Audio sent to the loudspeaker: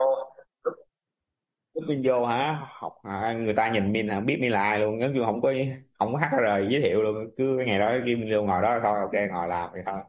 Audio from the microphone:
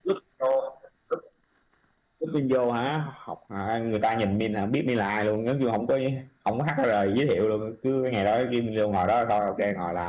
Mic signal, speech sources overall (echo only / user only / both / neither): echo only